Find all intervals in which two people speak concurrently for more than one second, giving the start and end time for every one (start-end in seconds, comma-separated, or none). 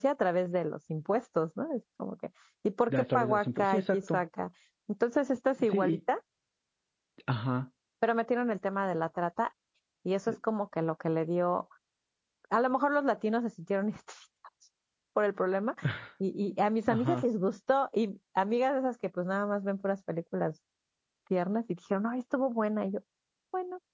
2.9-4.2